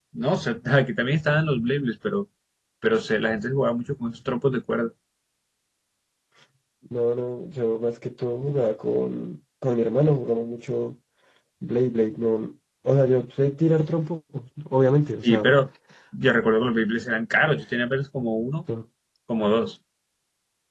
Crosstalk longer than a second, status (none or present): none